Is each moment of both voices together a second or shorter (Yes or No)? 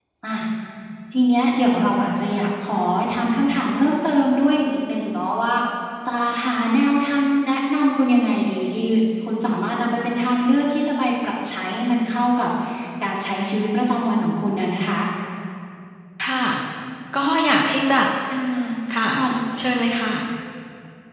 Yes